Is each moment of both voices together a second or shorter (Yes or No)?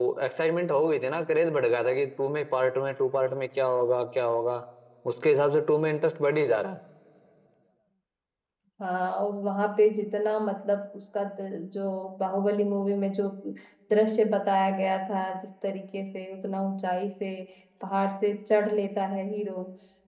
Yes